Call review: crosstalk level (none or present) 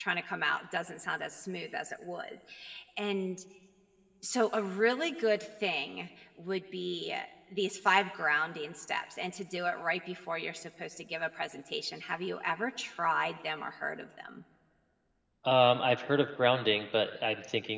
none